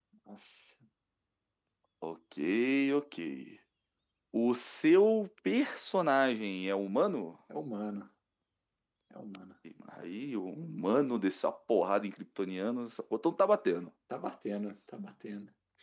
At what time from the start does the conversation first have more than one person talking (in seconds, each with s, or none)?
none